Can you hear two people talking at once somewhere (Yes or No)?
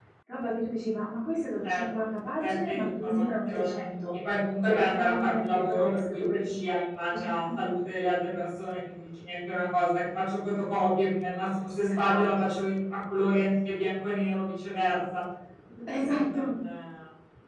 Yes